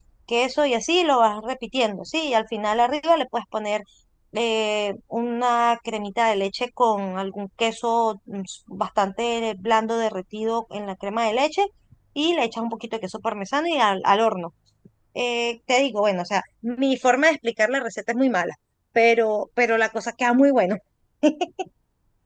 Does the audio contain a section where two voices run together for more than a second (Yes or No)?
No